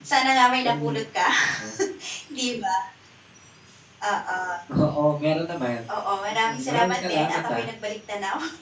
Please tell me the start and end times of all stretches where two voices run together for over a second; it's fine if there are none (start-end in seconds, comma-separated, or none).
6.4-7.7